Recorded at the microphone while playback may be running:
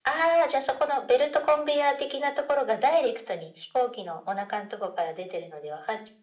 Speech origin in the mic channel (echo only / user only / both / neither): echo only